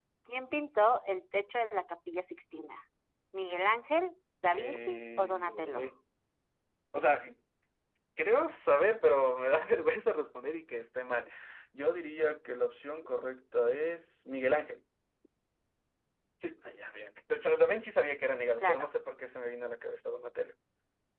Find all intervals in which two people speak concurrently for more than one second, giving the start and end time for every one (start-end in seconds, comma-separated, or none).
4.5-5.9